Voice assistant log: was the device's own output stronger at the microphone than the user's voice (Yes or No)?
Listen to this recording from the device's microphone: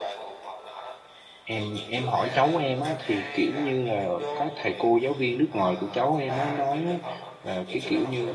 No